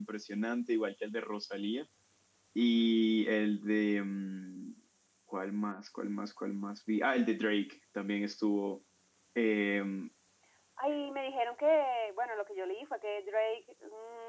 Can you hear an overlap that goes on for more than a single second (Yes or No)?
No